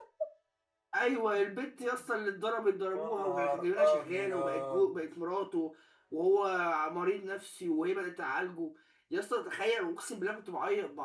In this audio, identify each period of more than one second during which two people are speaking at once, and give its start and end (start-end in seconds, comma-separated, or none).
2.9-4.9